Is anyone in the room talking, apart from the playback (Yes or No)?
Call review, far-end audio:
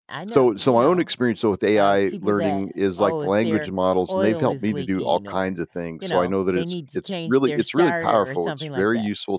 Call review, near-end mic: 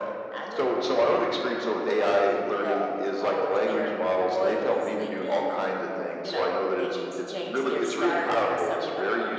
No